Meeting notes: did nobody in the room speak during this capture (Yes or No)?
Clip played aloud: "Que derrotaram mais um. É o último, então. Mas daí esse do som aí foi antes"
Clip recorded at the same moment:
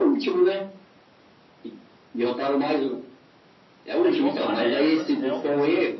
No